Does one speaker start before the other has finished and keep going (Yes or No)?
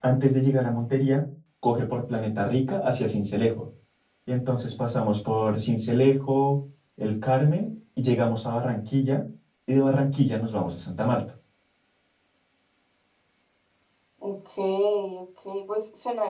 No